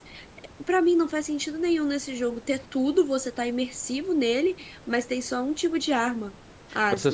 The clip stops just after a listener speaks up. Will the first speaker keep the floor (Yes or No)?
No